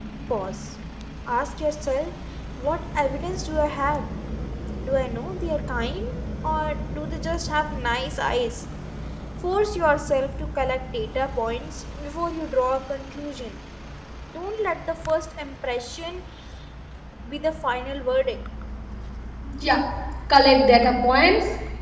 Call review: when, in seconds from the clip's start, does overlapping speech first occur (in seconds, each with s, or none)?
none